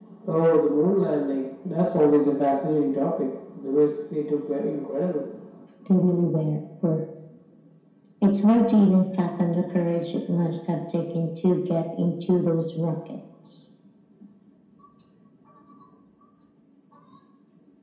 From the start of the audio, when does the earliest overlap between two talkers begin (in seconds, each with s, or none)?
none